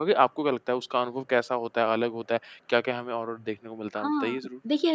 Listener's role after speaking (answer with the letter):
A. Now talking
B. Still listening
A